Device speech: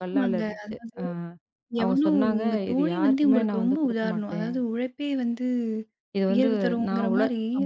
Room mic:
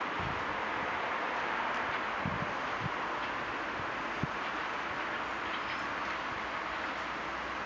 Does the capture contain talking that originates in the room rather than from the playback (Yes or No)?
No